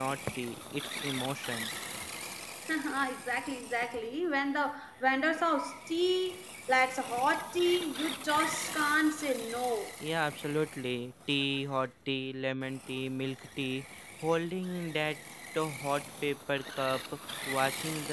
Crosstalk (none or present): none